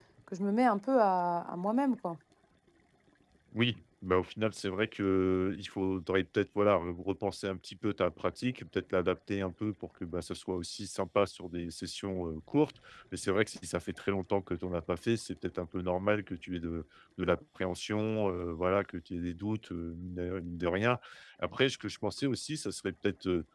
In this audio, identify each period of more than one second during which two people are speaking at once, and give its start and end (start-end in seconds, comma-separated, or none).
none